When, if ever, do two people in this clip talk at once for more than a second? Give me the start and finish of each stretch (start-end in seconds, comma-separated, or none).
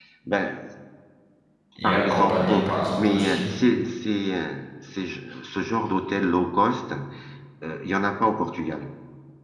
1.8-3.4